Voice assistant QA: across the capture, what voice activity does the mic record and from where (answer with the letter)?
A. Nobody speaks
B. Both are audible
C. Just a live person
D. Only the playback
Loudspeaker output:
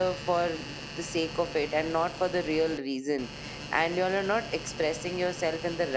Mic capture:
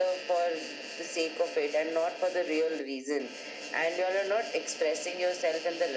D